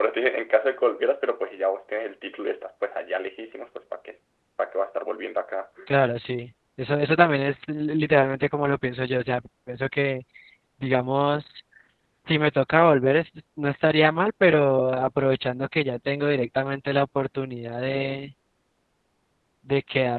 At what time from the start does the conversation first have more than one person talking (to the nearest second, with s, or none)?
none